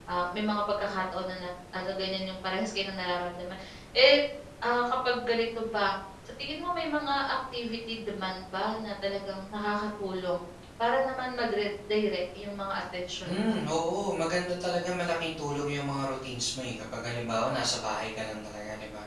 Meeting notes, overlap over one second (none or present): none